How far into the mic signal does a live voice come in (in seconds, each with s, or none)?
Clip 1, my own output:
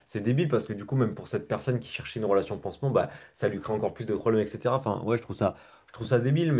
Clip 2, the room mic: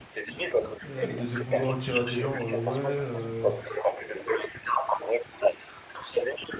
0.8 s